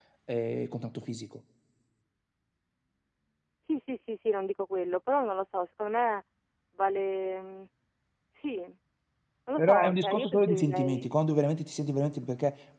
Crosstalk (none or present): present